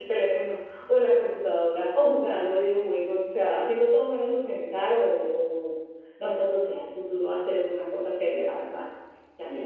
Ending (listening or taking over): taking over